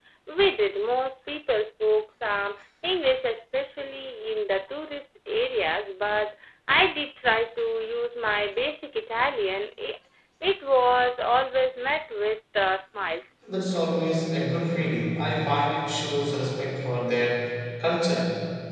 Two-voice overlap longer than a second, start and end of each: none

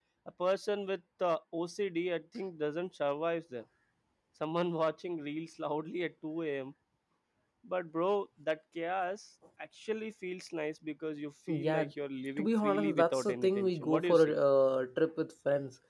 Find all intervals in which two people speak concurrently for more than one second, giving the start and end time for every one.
12.4-14.3

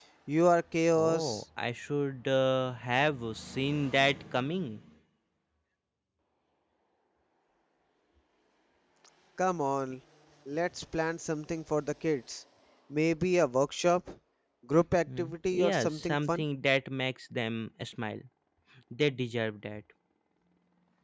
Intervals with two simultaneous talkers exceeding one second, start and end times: 15.2-16.4

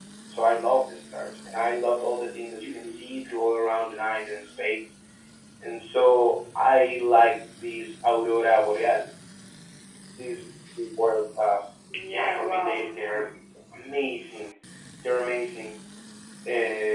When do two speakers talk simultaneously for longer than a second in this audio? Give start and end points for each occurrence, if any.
12.1-13.3

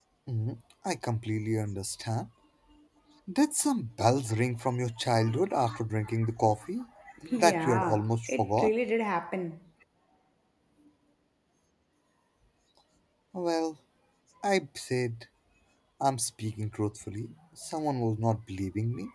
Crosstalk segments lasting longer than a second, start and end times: 7.4-8.7

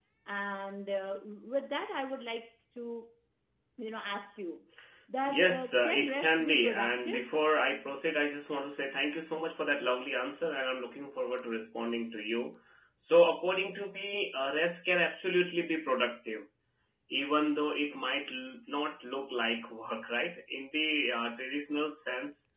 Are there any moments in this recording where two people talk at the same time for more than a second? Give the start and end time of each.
5.3-7.3

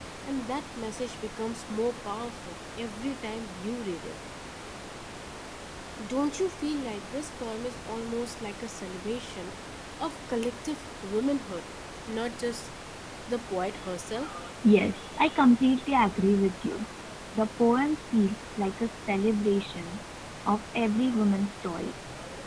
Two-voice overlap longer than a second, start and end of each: none

